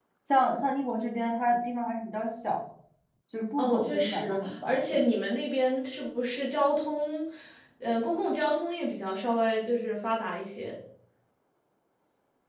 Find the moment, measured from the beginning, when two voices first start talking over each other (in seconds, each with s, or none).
3.6 s